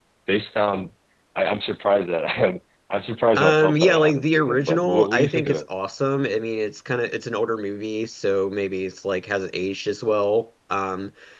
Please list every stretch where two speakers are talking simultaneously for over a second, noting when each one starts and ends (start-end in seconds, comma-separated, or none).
3.4-5.7